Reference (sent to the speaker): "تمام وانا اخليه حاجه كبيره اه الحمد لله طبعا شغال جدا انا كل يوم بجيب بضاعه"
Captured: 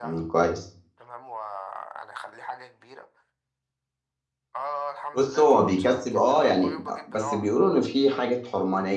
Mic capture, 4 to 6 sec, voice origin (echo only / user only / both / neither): both